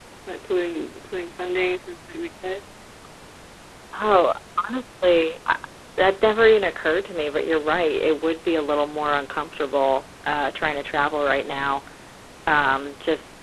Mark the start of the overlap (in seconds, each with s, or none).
none